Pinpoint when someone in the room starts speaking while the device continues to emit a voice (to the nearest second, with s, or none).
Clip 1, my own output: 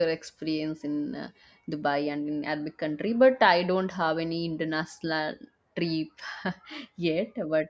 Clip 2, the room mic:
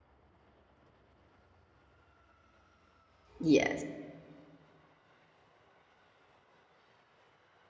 3 s